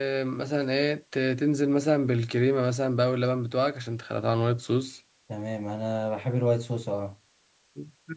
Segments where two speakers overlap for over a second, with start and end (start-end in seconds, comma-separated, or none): none